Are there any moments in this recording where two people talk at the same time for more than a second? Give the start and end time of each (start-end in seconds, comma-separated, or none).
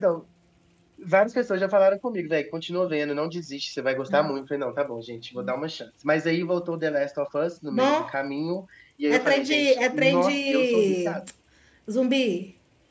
9.1-11.2